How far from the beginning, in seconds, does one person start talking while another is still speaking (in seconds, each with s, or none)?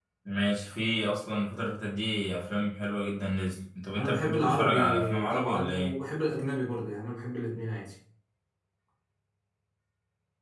4.0 s